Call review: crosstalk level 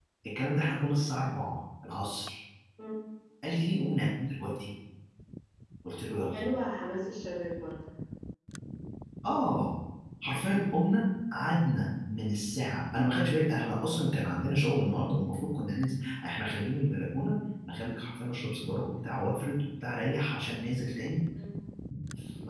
none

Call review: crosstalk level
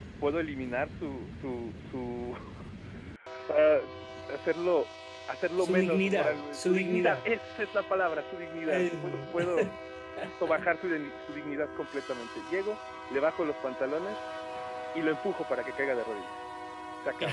present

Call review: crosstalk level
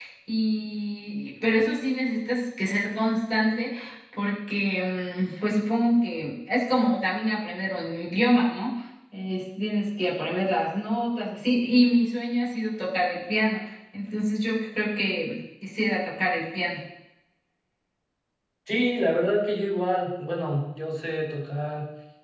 none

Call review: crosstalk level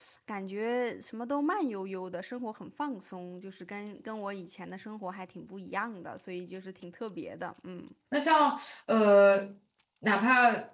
none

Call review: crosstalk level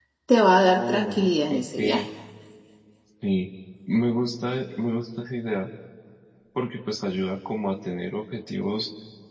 present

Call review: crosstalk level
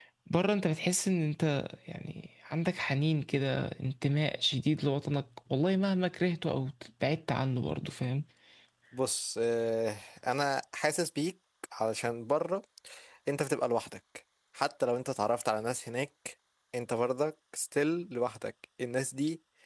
none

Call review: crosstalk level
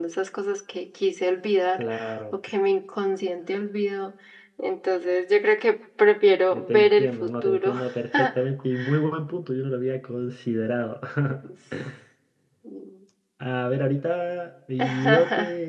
present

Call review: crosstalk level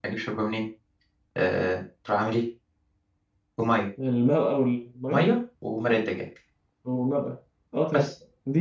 none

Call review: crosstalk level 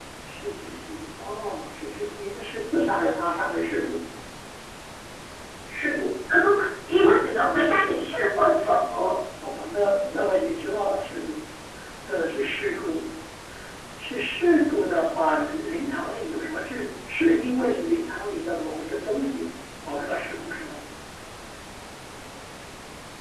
none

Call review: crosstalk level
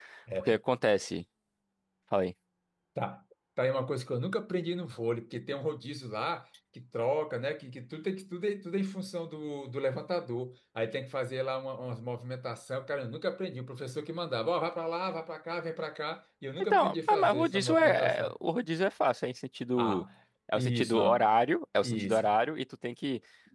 present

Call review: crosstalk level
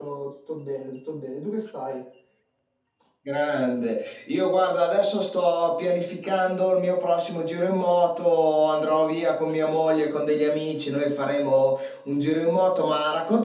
none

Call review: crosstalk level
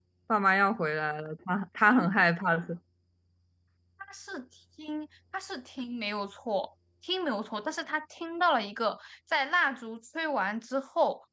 none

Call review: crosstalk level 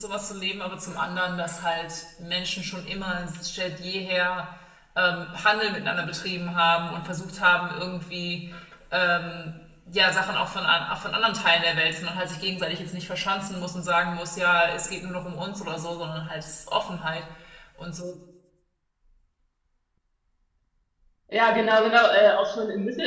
none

